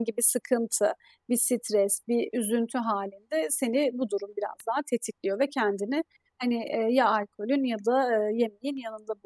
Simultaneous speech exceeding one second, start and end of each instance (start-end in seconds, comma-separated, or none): none